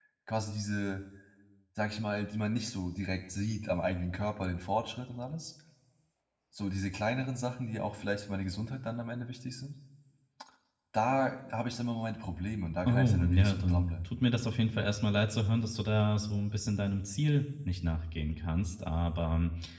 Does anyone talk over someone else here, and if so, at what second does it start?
13 s

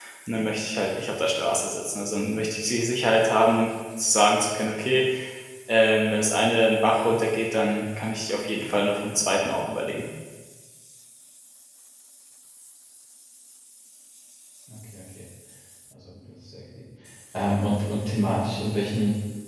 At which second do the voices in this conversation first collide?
none

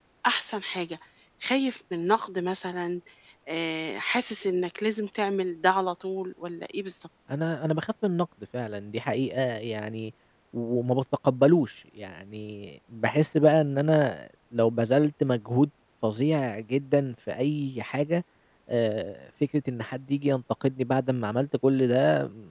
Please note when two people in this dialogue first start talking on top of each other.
none

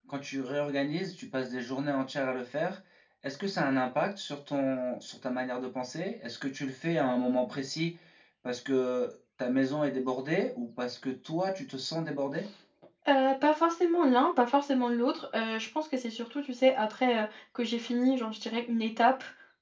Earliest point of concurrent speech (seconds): none

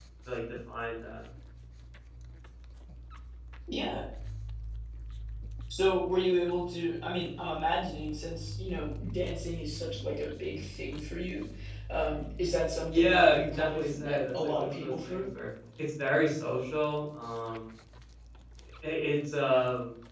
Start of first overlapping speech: 13 s

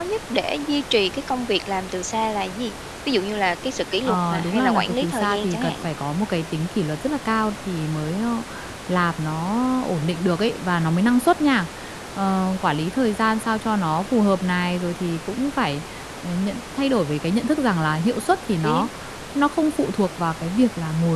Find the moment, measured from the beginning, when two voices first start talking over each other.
4 s

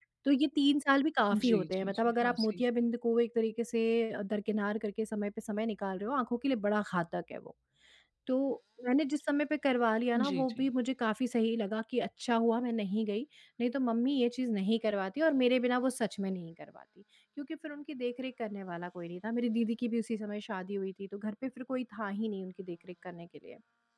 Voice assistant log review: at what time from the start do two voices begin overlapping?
1 s

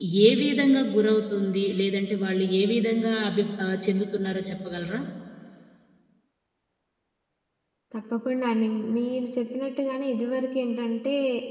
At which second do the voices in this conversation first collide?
none

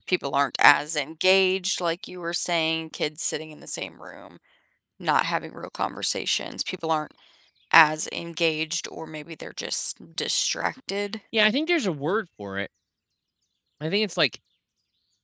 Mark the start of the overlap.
none

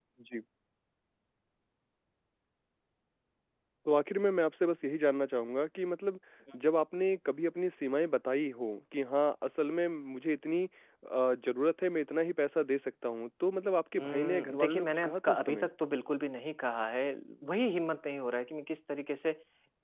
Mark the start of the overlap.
14 s

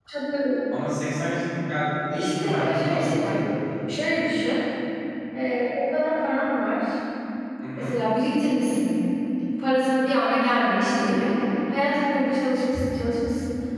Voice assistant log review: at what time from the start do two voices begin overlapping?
2 s

